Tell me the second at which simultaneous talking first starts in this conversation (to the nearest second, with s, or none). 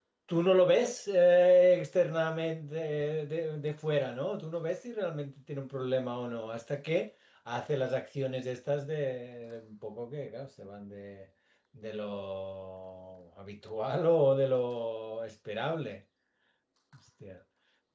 none